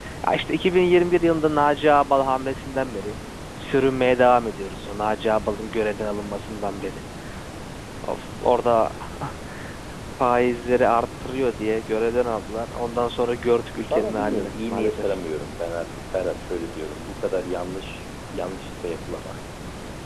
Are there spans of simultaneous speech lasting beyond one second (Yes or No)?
Yes